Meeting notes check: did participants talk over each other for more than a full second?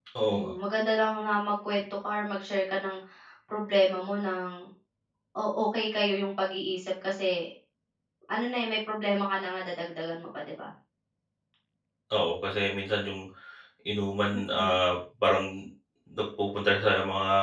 No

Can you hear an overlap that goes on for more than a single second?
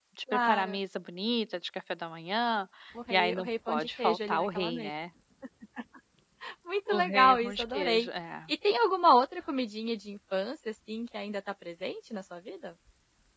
Yes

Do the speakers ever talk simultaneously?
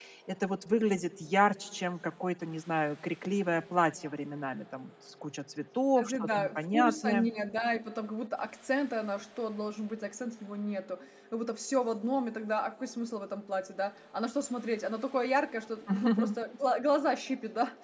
Yes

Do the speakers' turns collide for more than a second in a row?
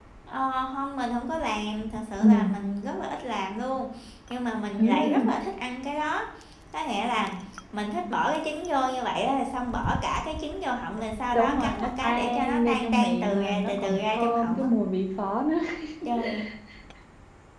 Yes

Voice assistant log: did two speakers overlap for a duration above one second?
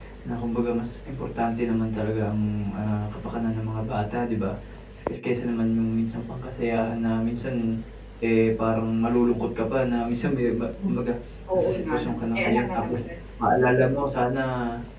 Yes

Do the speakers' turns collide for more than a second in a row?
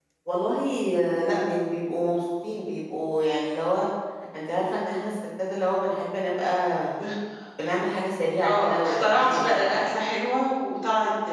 Yes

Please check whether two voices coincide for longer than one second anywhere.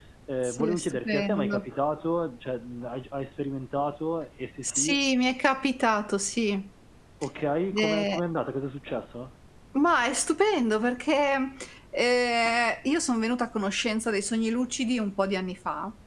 Yes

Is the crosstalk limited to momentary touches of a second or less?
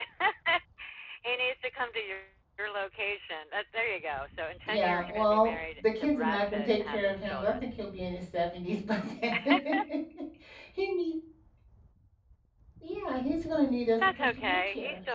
No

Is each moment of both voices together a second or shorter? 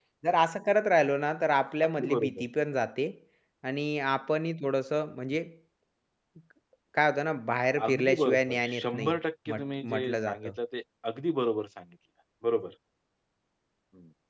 No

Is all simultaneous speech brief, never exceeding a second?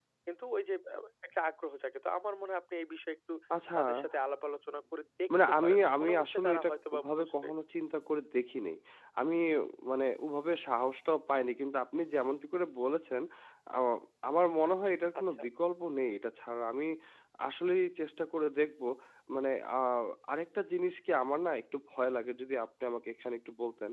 No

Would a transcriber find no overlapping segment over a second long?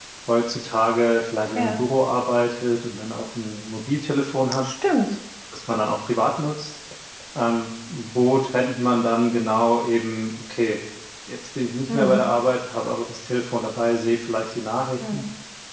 Yes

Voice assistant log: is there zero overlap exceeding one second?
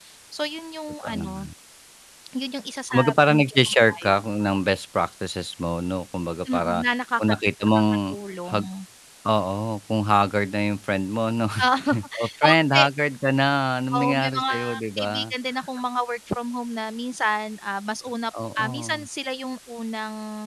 No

